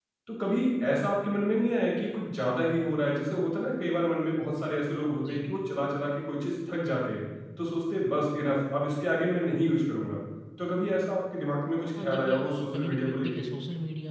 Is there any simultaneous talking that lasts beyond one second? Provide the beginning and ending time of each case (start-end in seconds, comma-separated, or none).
12.0-13.5